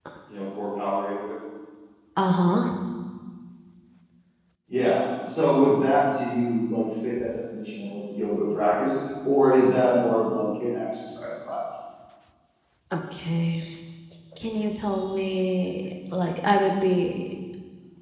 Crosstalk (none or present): none